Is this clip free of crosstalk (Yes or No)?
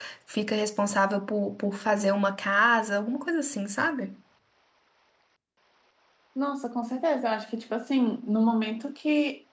Yes